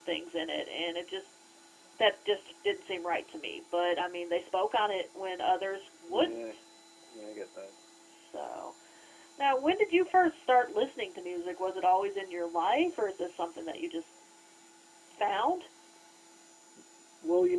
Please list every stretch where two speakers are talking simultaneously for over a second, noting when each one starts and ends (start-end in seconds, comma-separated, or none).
none